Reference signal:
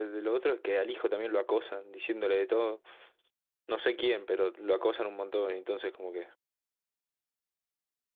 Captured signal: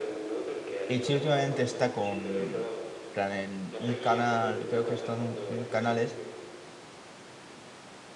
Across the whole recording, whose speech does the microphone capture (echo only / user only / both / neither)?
both